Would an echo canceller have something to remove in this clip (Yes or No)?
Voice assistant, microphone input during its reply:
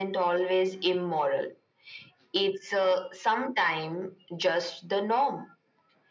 Yes